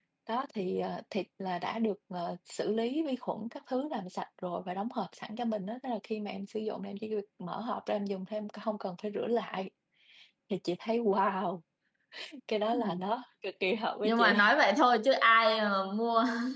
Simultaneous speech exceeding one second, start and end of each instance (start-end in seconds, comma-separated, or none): none